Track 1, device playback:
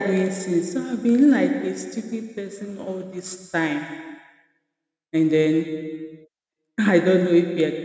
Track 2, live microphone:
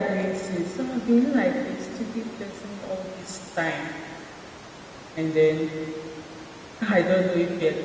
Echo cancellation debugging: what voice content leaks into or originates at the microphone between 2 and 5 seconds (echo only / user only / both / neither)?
echo only